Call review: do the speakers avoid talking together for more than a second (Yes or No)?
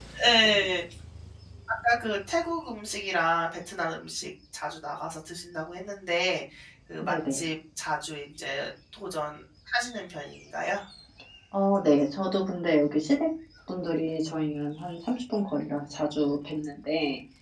Yes